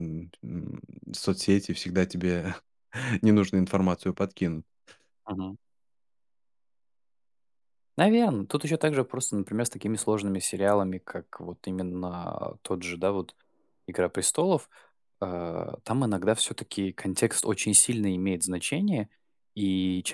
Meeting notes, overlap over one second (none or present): none